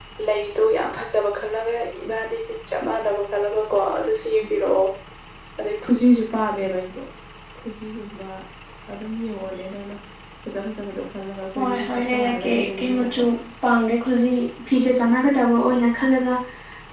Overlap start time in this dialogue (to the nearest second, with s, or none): 12 s